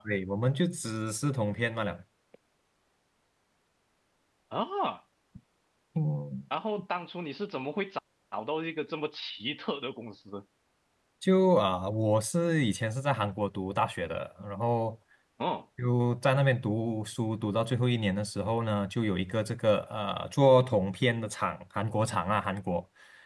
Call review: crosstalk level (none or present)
none